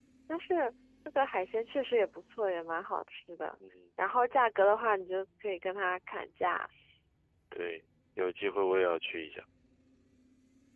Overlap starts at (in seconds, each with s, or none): none